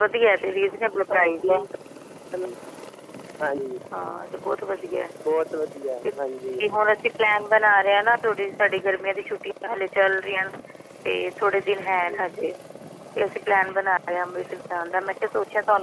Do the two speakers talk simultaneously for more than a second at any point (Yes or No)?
No